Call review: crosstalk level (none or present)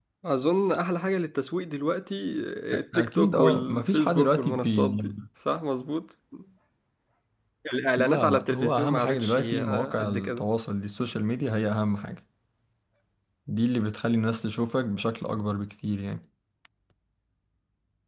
present